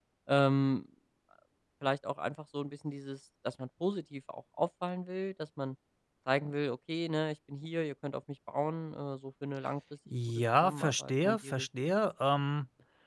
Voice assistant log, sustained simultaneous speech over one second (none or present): present